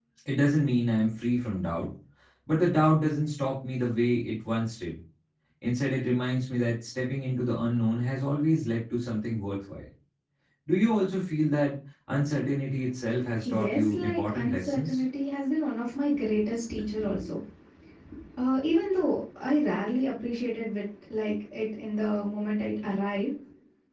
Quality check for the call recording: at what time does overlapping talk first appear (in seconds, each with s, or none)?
13.4 s